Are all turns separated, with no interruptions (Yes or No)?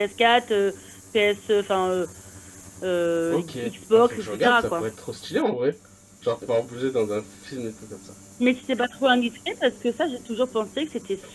No